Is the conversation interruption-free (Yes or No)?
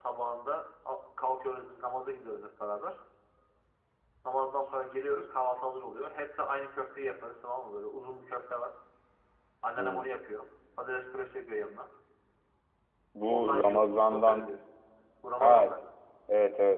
No